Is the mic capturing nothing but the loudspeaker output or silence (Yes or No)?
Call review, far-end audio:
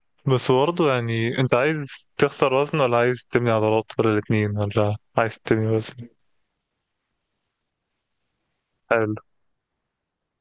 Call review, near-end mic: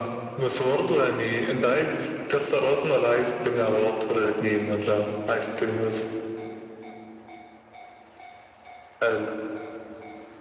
Yes